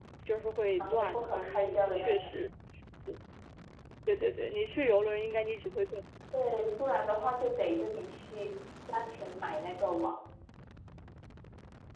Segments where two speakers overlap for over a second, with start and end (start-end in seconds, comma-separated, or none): 0.8-2.3